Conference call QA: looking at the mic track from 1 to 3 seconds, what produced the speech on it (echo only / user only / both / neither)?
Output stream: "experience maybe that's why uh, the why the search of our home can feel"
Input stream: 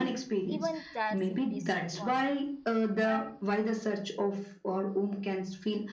both